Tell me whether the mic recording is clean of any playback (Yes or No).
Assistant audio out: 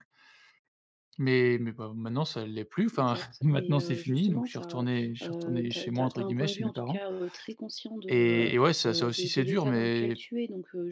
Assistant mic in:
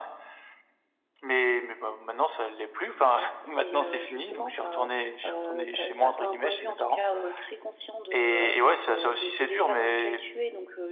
No